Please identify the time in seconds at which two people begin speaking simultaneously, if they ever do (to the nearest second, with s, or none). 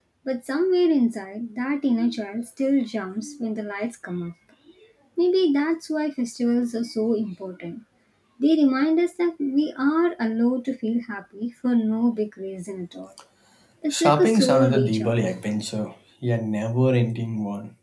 14 s